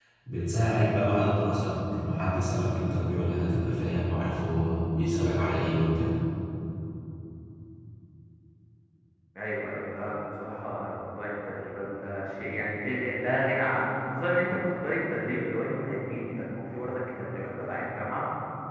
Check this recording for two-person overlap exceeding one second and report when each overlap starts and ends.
none

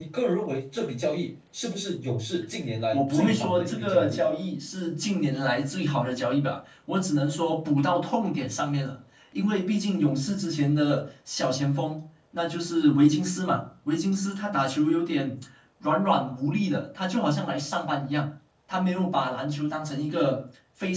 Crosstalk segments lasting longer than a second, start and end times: 2.9-4.2

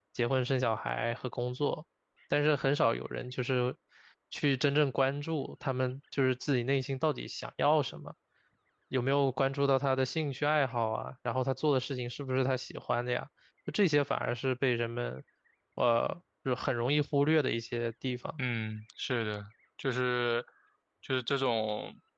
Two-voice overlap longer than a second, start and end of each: none

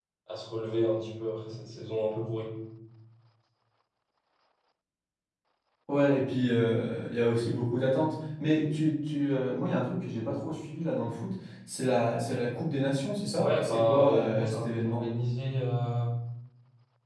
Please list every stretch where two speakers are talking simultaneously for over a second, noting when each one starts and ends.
13.4-15.0

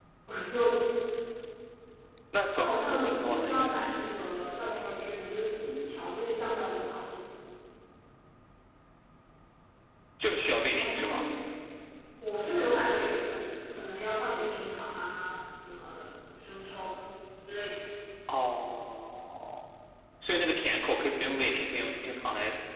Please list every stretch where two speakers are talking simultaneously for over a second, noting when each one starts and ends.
2.5-3.8

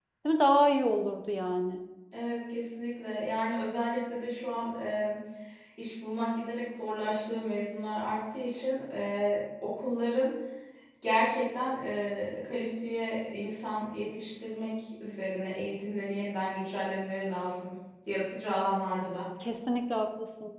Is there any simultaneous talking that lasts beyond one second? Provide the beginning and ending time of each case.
none

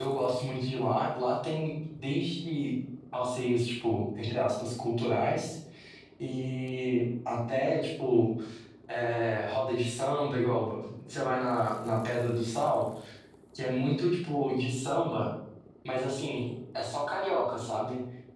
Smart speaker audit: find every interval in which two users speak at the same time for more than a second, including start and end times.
none

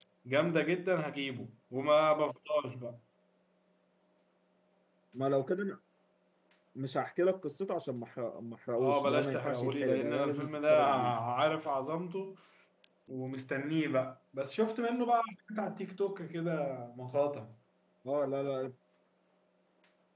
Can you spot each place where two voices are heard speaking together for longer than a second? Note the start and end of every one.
8.8-11.1

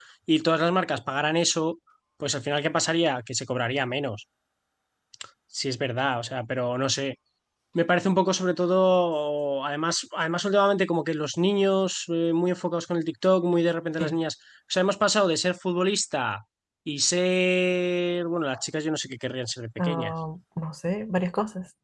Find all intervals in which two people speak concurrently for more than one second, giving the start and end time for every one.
none

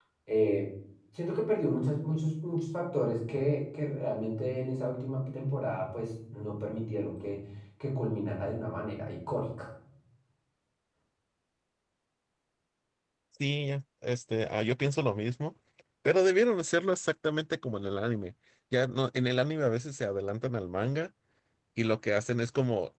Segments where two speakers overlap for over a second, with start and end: none

